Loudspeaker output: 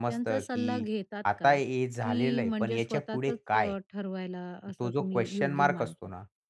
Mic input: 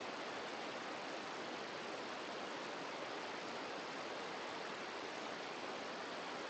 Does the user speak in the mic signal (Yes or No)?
No